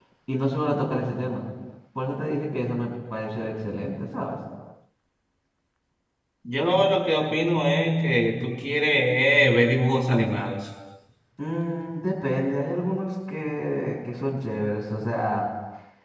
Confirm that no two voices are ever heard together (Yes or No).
Yes